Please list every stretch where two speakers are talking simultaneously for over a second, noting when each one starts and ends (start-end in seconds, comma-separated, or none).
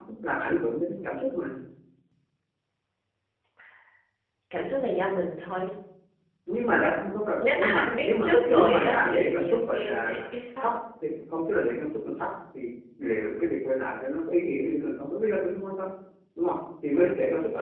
7.4-10.1